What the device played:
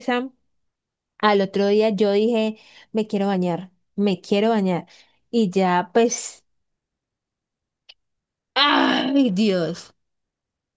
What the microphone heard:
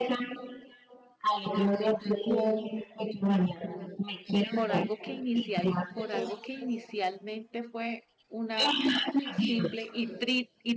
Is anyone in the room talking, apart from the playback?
Yes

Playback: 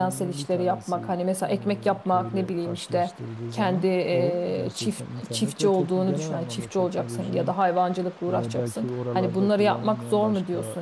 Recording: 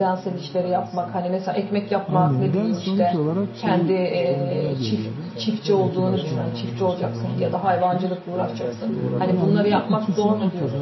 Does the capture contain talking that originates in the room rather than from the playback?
Yes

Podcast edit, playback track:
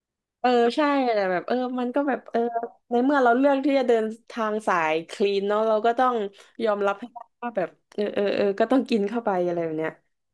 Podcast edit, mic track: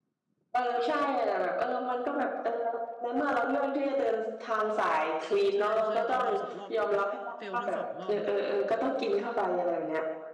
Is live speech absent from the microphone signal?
No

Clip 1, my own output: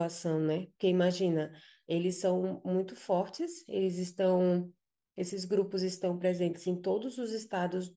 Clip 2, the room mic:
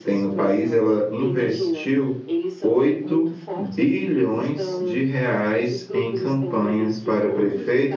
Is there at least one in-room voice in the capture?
Yes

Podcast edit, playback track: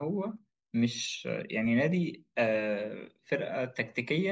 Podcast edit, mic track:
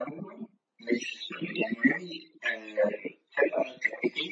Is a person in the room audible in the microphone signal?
No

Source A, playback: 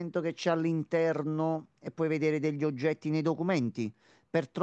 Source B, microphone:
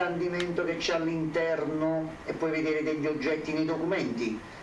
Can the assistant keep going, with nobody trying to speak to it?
Yes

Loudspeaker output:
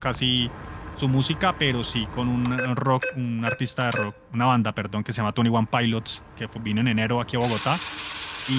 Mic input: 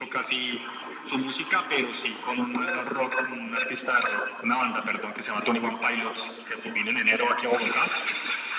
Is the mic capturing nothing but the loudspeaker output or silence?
No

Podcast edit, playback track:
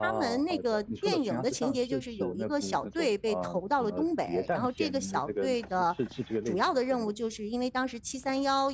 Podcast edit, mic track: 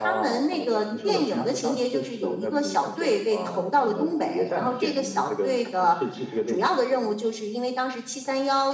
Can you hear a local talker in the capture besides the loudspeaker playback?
No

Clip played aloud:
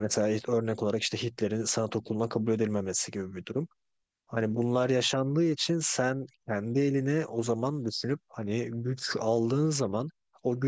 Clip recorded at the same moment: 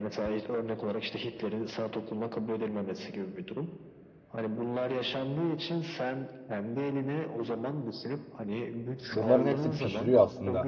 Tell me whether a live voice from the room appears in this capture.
Yes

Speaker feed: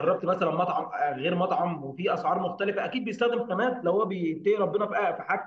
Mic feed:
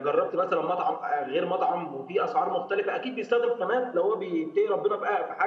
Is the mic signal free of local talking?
Yes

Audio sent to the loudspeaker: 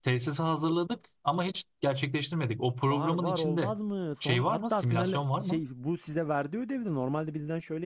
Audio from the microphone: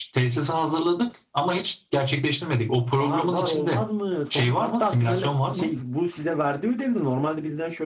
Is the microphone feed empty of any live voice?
Yes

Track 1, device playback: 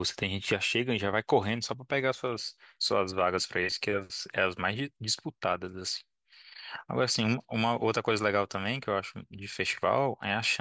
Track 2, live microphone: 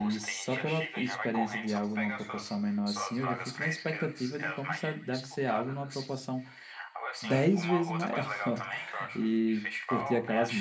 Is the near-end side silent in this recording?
No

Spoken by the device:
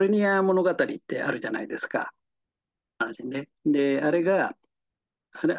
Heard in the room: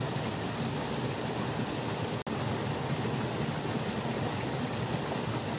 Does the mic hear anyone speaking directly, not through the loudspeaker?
No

